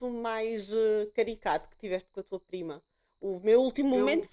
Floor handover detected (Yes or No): No